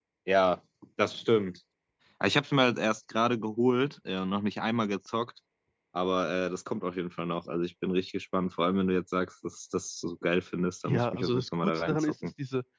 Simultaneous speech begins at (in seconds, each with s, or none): 10.8 s